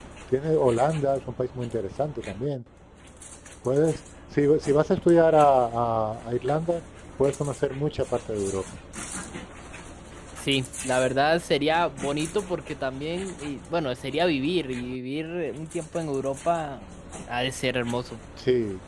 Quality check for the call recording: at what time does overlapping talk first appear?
none

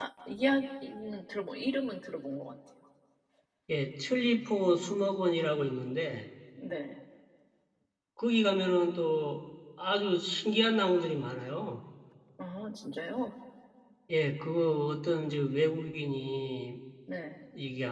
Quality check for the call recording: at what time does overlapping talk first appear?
none

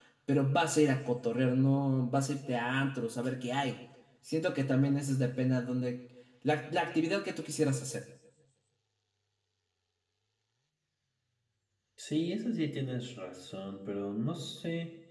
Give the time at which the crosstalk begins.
none

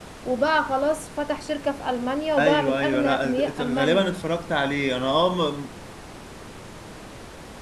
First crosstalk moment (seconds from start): 2.4 s

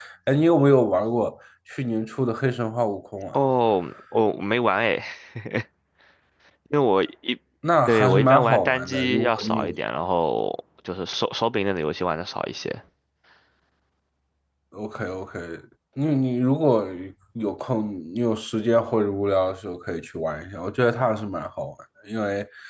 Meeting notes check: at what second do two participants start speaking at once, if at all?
7.9 s

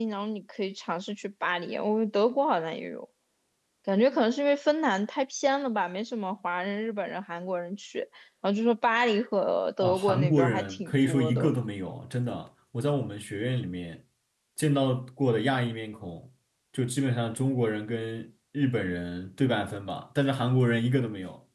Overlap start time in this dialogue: 9.8 s

